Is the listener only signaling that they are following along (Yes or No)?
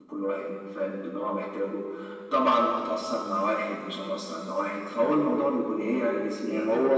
No